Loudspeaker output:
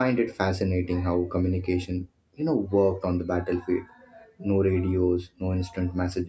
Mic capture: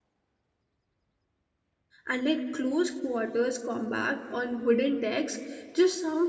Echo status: none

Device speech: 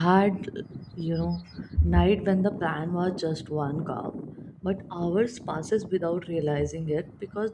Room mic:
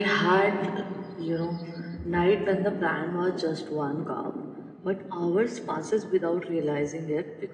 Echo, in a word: present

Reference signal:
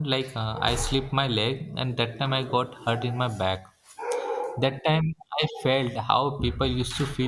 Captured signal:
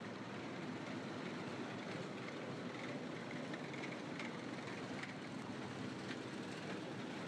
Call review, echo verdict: none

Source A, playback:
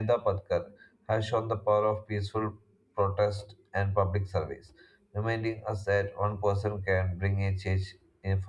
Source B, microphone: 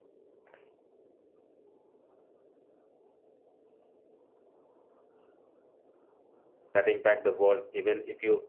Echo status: none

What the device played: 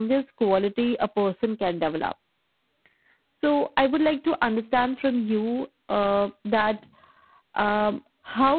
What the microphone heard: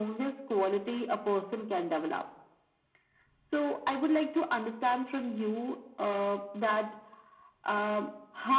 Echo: present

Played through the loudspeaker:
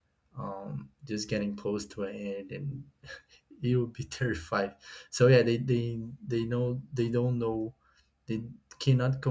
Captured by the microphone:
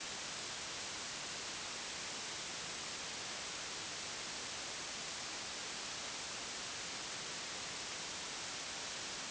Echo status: none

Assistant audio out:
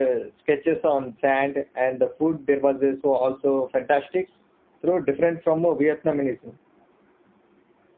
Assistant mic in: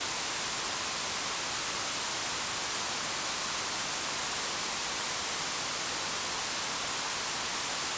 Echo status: none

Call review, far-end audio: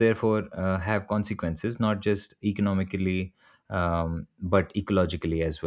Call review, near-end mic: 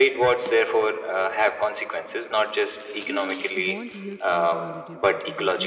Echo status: present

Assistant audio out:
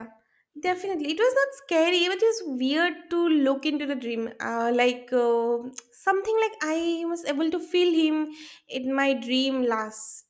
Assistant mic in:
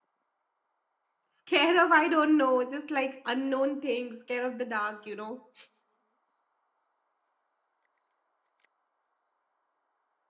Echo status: none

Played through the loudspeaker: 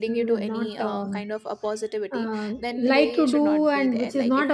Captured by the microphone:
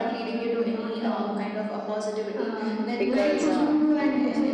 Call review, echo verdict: present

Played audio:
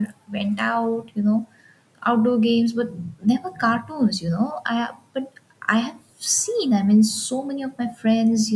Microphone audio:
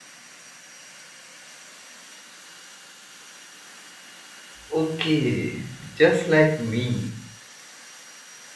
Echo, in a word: none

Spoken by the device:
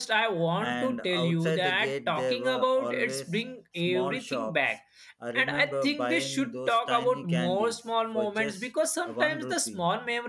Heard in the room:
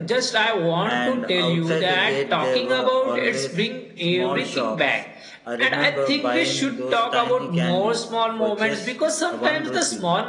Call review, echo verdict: present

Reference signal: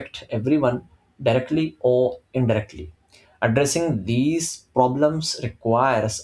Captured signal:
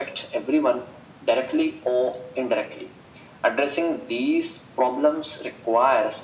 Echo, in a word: present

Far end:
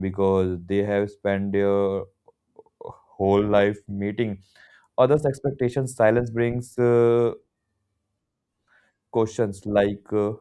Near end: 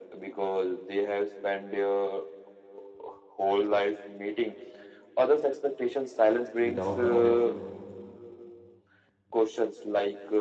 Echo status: present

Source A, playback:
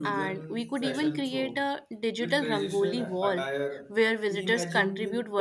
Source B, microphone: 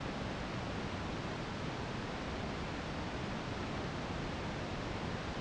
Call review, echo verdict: none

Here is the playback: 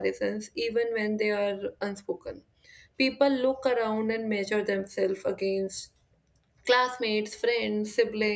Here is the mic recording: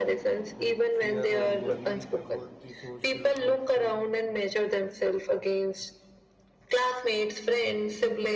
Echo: present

